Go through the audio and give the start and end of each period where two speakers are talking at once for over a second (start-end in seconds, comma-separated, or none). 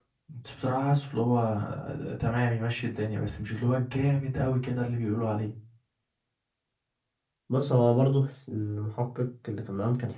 none